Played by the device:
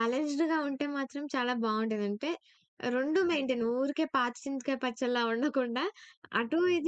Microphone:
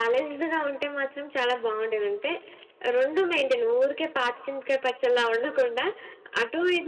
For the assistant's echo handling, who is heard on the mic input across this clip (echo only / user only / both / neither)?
echo only